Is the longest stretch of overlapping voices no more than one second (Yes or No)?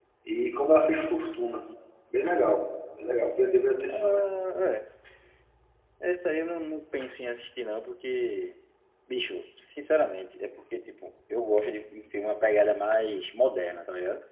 Yes